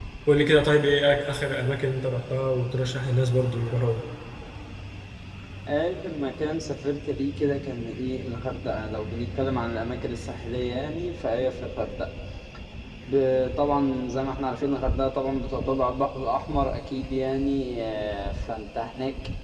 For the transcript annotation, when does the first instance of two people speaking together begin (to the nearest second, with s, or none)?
none